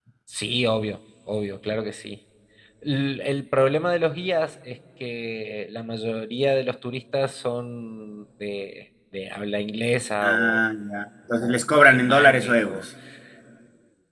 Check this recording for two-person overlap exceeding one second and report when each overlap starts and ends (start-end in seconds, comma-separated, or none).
11.4-12.8